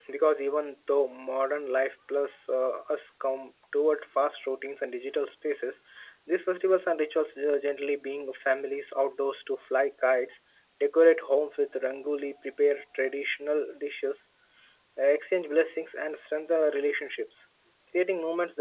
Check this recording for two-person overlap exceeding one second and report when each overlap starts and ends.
none

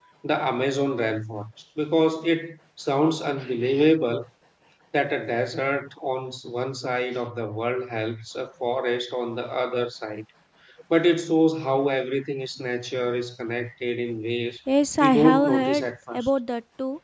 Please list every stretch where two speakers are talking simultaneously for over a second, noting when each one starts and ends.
15.0-16.3

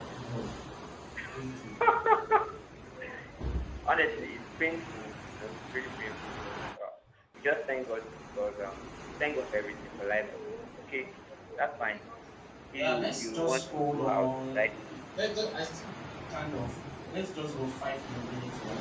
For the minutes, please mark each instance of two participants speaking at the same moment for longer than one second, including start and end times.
12.8-14.8

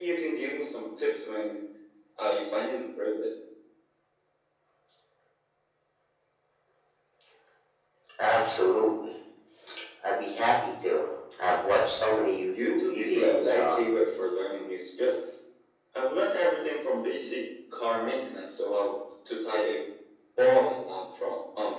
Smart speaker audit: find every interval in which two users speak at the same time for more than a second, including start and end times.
12.6-13.9

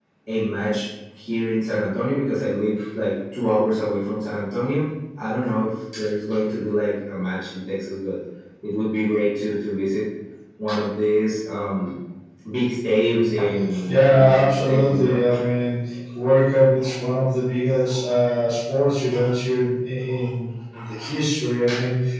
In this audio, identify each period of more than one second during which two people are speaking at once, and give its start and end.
13.8-15.2

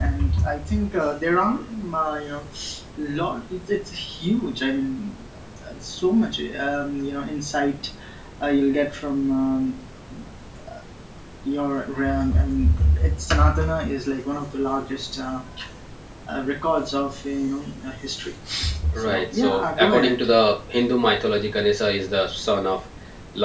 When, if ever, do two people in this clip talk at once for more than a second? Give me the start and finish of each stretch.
19.0-20.2

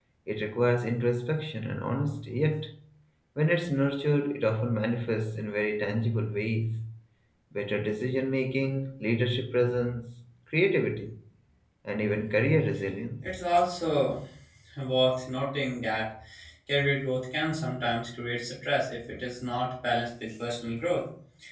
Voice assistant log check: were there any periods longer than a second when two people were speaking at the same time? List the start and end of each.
none

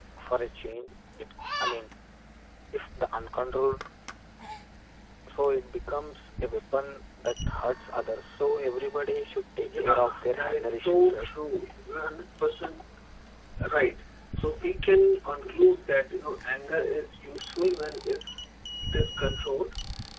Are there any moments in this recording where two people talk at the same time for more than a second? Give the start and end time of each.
9.6-11.3

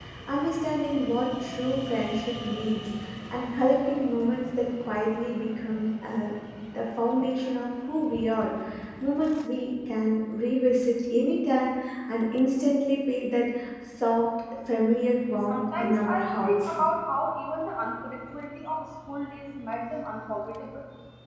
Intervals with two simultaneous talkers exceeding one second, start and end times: 15.5-16.7

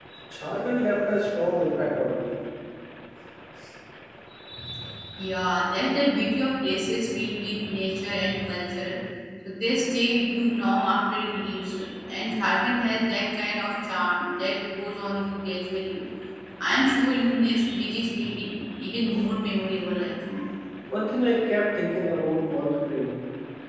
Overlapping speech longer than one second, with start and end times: none

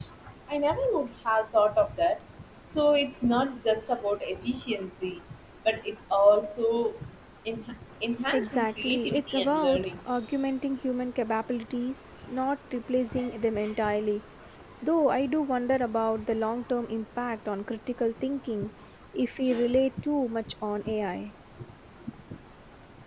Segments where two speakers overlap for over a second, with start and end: 8.3-9.9

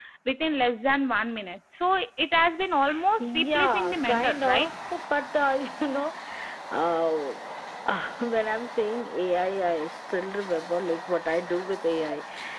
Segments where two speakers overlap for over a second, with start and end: 3.2-4.7

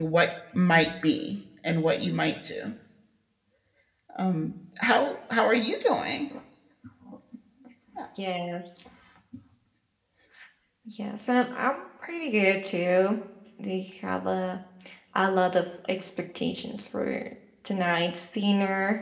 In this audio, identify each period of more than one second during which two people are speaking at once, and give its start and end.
none

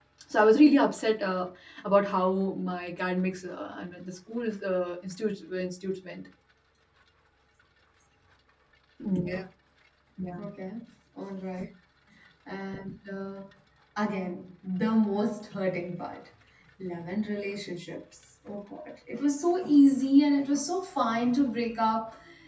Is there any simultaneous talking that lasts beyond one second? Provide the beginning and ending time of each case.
none

